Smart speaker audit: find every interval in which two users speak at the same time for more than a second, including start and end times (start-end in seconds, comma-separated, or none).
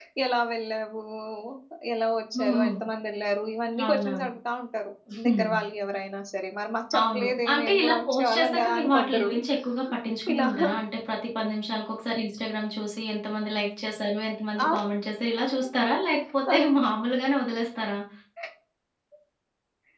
7.0-9.3